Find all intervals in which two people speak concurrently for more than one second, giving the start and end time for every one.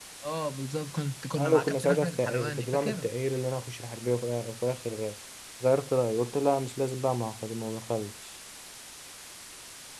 1.4-3.1

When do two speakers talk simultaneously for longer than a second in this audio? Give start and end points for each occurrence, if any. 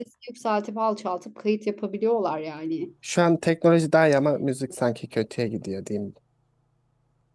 none

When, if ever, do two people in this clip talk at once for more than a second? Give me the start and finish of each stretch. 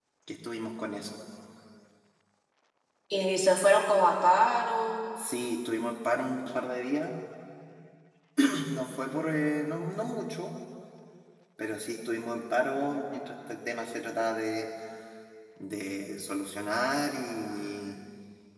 none

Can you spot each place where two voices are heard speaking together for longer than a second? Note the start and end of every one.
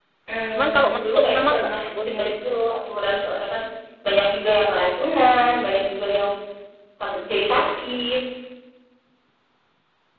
0.5-2.3

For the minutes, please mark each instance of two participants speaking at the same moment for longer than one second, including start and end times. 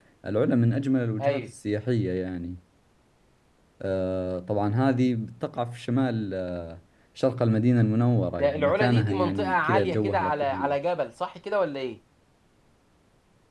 8.4-10.7

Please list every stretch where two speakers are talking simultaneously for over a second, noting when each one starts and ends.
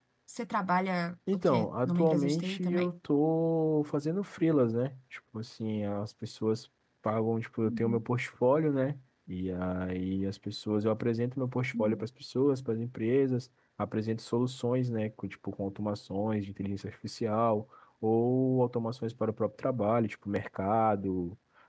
1.3-2.9

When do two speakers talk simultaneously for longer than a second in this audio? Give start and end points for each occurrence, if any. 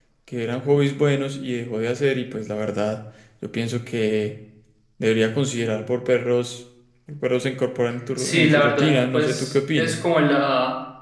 8.2-10.0

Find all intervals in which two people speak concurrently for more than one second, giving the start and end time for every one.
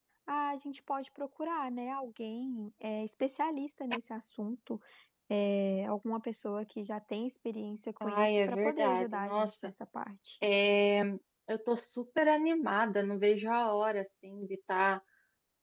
8.0-9.7

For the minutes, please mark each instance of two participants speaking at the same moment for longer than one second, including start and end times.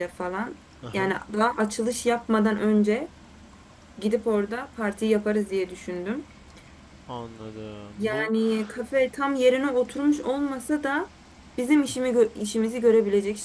none

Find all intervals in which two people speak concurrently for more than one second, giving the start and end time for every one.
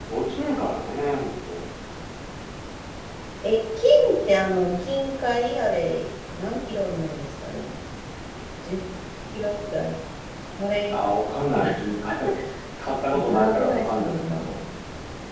13.2-14.4

